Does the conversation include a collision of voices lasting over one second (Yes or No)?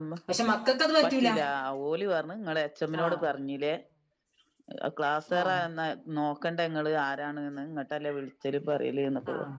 No